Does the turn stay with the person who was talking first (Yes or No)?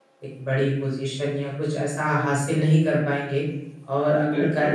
Yes